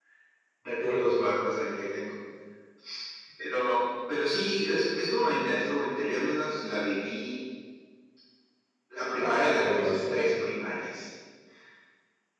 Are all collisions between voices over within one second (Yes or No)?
No